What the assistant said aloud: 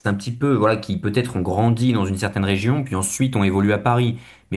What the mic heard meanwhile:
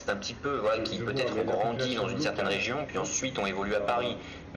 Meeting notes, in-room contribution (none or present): present